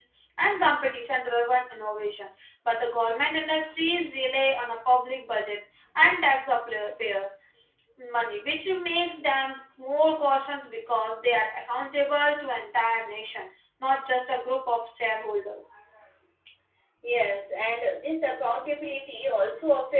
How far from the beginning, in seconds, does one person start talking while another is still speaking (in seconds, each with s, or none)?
none